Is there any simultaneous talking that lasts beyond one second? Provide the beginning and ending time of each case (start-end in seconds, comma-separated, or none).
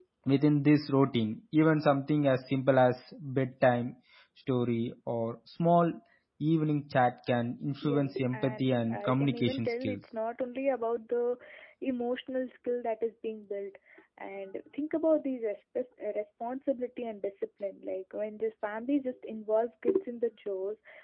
7.8-10.0